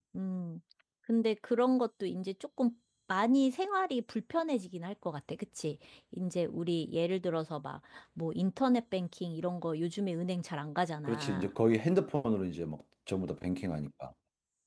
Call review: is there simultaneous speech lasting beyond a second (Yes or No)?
No